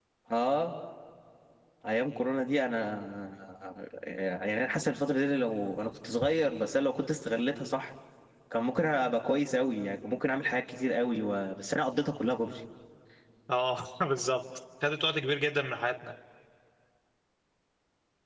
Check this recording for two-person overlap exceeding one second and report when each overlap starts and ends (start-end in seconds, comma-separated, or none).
none